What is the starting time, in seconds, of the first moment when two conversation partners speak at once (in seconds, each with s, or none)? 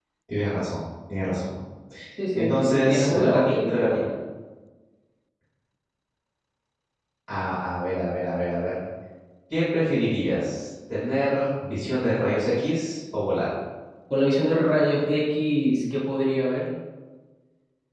2.4 s